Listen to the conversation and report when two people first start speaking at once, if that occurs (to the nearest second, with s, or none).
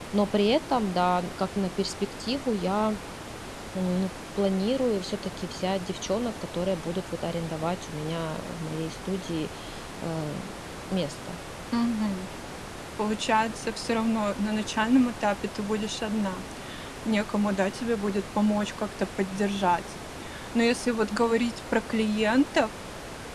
none